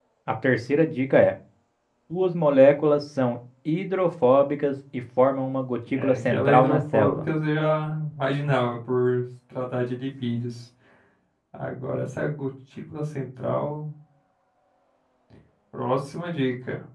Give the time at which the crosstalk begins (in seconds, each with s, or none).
6.0 s